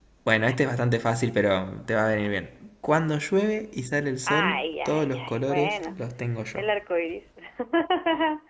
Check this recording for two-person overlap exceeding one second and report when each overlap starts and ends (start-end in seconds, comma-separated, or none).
4.3-6.0